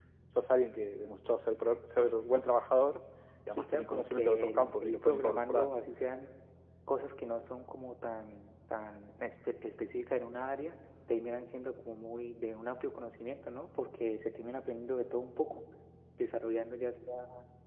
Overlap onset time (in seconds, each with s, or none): 3.5 s